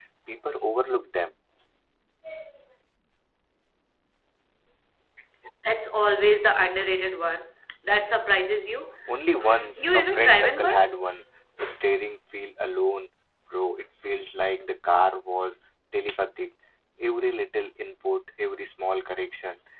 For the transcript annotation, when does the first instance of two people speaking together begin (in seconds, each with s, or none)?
9.4 s